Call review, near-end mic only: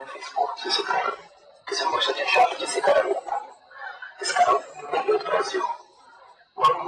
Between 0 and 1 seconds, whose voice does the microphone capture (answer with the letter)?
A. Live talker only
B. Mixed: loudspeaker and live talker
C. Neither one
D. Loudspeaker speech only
D